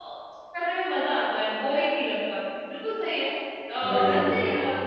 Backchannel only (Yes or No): Yes